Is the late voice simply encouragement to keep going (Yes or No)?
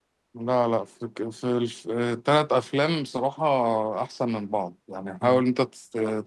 Yes